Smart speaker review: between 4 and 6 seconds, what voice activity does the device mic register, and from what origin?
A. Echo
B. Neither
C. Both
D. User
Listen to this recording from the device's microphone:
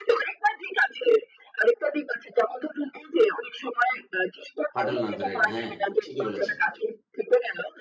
C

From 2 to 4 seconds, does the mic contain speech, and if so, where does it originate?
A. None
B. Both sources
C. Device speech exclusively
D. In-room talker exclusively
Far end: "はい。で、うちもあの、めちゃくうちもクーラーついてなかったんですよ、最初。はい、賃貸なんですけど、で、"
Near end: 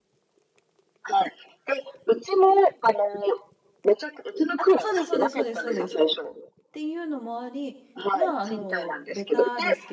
C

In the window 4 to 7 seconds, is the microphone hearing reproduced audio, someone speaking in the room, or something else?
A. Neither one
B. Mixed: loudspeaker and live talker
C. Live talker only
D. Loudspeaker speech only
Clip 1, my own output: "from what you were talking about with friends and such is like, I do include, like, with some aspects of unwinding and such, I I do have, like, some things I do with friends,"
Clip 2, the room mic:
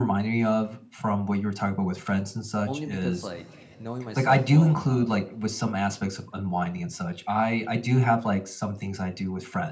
B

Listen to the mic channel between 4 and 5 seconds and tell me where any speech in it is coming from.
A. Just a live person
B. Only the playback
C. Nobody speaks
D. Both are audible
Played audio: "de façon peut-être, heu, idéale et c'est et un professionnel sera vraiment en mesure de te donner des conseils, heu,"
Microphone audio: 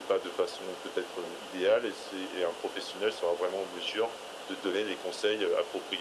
B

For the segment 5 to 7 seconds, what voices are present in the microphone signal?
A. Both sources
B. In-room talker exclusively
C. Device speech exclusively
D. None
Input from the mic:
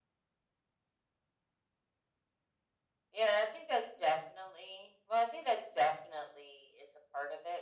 C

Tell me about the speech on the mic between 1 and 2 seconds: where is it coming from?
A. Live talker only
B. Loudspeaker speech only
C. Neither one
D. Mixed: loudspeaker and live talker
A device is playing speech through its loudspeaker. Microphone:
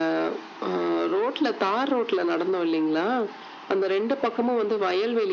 B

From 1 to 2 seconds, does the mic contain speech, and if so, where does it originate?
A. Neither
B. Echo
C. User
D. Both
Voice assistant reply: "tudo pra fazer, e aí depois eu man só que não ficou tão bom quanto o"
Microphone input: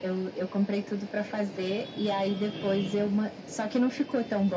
B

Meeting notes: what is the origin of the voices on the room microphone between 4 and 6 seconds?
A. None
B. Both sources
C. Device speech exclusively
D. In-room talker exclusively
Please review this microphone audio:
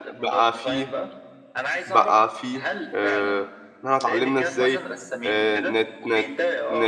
B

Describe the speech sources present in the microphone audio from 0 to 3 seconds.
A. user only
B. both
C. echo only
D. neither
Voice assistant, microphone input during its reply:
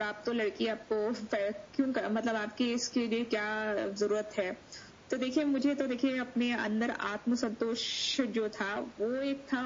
C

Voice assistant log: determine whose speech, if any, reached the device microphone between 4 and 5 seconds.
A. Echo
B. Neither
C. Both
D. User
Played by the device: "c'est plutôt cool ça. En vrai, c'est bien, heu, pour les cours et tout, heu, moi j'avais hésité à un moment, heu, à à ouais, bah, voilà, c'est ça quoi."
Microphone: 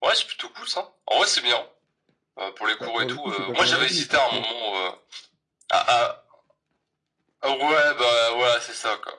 C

